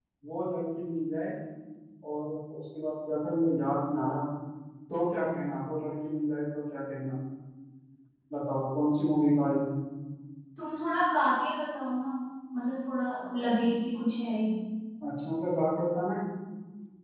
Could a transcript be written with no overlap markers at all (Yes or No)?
Yes